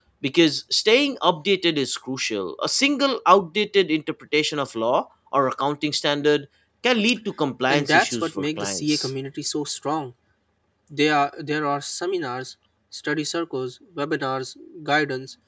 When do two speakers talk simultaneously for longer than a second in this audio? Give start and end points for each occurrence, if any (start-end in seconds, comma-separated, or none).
7.7-9.1